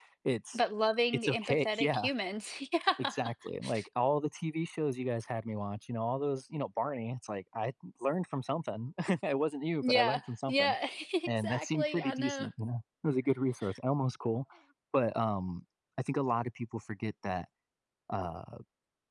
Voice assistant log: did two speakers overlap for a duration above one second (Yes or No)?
Yes